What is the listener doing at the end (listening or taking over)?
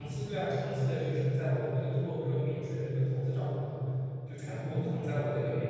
listening